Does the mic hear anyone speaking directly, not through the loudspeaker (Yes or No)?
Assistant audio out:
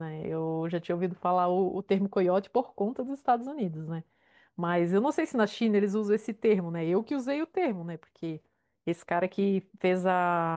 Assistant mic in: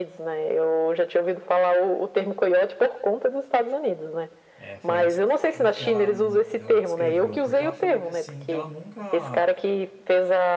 Yes